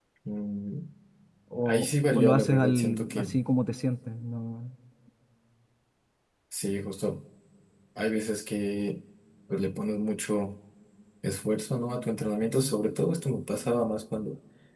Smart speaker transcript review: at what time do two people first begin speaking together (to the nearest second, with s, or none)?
2 s